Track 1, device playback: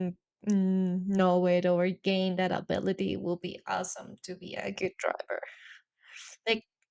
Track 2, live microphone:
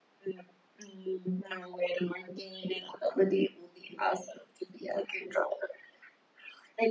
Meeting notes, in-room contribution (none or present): none